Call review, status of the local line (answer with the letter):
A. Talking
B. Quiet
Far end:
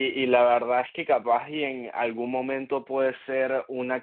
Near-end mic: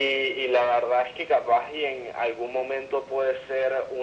B